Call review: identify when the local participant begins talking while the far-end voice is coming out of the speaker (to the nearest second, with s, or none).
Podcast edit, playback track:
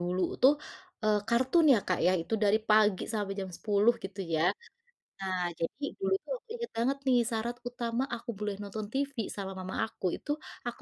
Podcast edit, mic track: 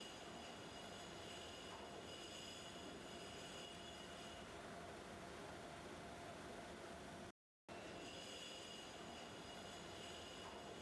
none